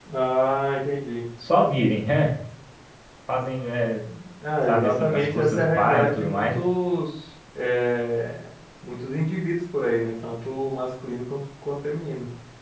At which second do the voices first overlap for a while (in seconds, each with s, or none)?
4.7 s